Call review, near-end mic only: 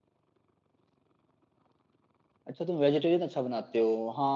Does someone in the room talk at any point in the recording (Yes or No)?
Yes